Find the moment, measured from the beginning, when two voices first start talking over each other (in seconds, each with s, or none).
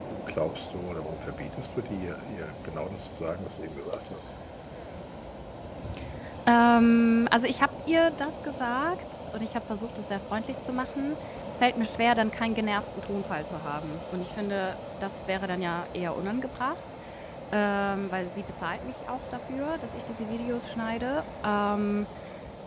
none